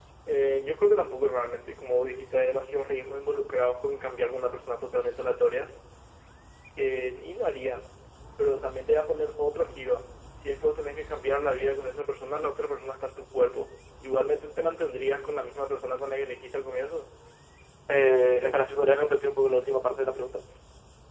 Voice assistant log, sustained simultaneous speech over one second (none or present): none